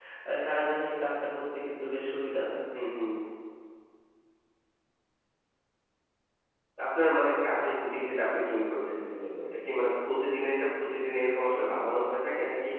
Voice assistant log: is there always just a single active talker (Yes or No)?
Yes